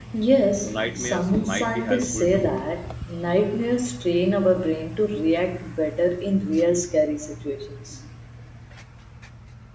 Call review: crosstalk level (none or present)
present